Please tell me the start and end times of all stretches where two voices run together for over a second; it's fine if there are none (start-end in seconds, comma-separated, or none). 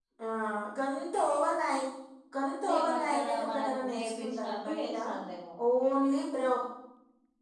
2.7-5.0